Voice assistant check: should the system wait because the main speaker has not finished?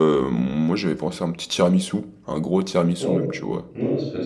No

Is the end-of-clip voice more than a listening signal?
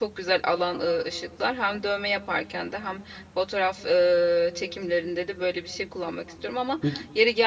No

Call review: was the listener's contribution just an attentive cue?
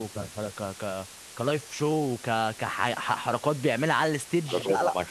No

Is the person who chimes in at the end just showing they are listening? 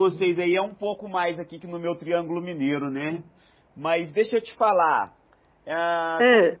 Yes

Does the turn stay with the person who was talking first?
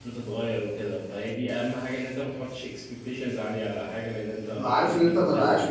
No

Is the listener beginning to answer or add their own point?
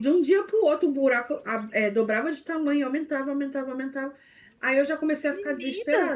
No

